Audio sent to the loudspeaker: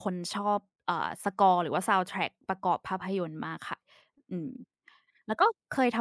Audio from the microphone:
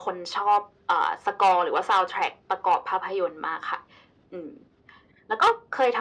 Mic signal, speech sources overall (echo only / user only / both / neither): echo only